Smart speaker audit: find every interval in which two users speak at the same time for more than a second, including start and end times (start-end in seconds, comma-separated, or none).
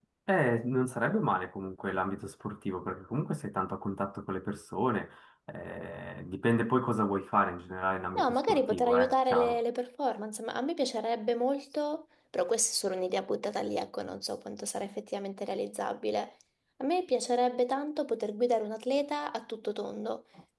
8.2-9.6